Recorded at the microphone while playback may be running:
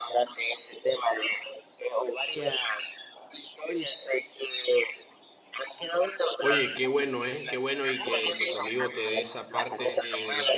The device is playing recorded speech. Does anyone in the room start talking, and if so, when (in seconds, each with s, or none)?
6.4 s